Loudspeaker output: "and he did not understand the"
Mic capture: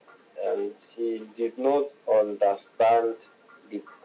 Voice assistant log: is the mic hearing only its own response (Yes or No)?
Yes